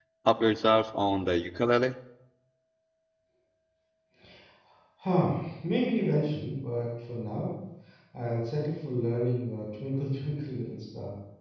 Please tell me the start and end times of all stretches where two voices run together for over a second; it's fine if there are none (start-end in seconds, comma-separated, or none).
none